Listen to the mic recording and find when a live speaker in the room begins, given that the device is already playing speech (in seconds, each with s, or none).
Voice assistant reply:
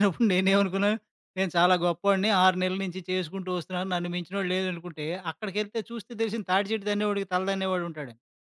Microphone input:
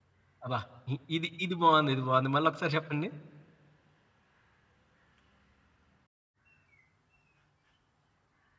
0.4 s